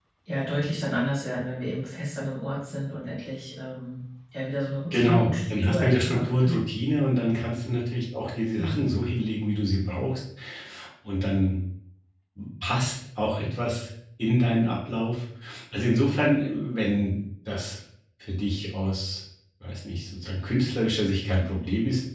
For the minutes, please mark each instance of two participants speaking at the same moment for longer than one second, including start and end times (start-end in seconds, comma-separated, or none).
4.9-6.6